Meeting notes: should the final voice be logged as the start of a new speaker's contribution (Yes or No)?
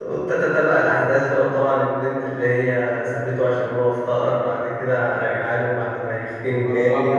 Yes